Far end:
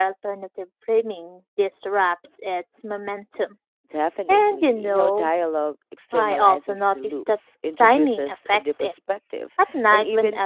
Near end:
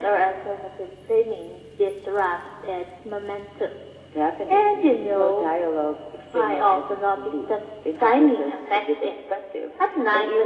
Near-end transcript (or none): none